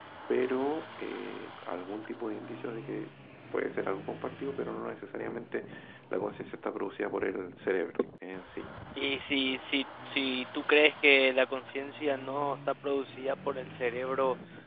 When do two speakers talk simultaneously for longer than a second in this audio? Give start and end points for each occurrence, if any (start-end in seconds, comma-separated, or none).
none